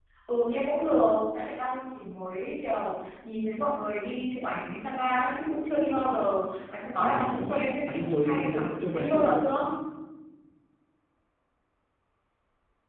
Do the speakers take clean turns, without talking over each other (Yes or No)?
No